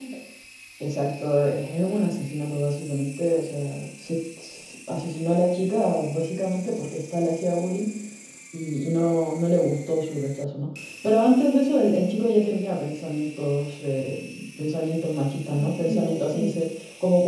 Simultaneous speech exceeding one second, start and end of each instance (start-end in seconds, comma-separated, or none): 15.3-16.6